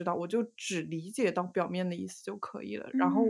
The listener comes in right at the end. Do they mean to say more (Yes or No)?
Yes